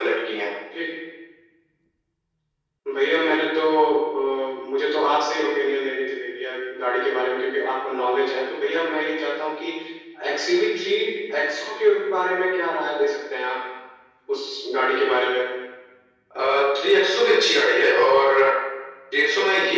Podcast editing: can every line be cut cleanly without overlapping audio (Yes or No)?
Yes